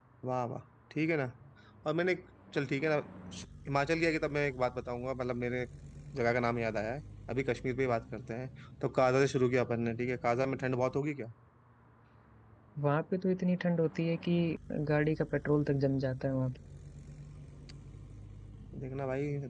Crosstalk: none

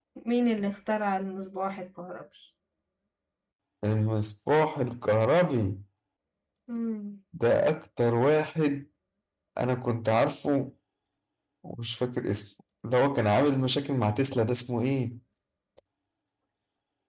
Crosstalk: none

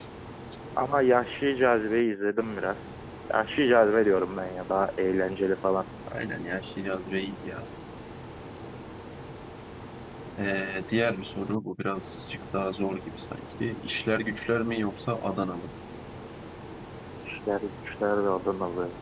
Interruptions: none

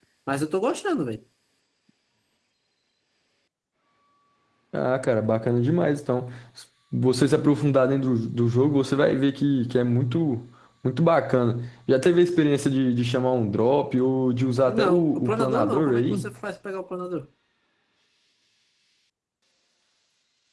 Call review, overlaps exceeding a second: present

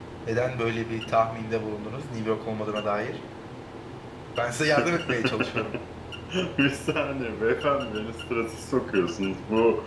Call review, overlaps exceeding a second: none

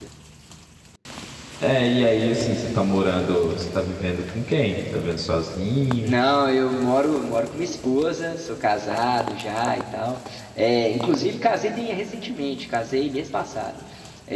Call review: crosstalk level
none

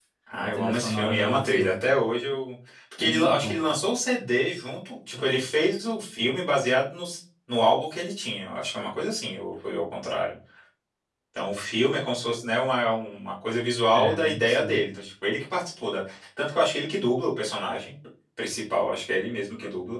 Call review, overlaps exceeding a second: present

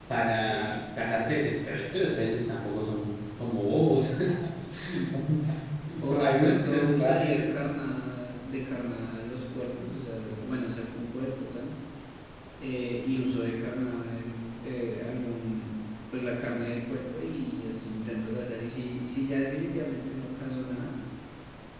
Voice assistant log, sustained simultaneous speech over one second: present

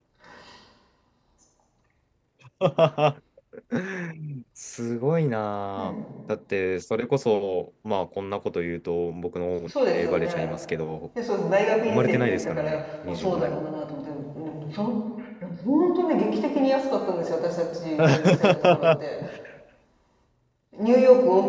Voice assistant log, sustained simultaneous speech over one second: present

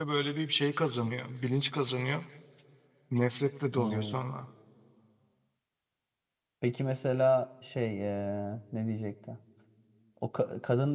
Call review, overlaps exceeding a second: none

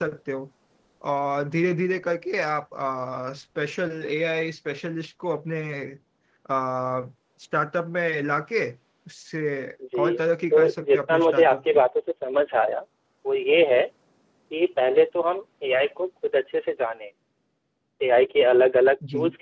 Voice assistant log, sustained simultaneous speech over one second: present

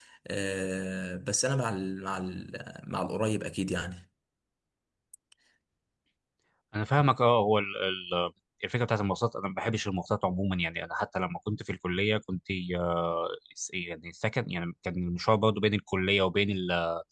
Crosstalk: none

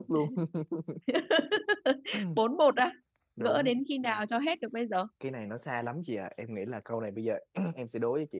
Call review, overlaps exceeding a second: none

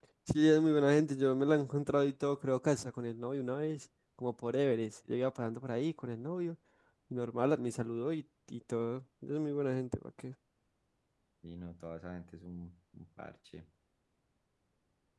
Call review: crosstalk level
none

